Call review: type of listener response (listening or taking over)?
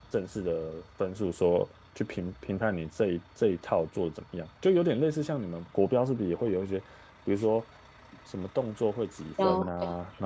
listening